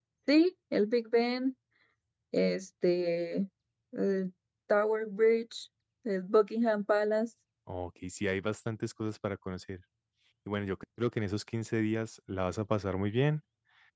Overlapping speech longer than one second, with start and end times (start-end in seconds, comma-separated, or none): none